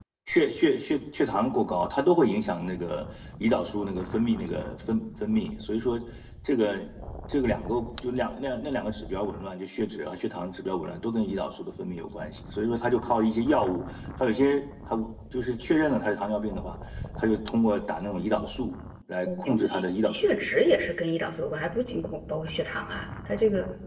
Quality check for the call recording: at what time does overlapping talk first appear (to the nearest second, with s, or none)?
19 s